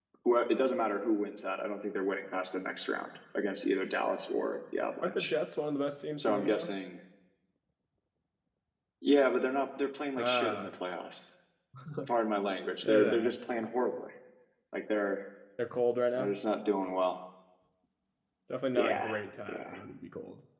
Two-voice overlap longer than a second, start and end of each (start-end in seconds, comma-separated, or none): none